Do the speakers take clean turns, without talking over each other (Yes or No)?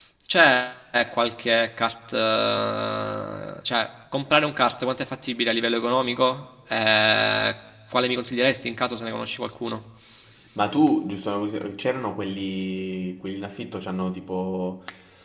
Yes